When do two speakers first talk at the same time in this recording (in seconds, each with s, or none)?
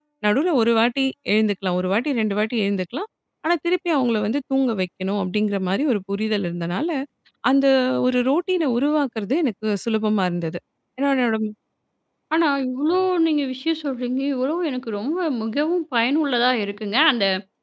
none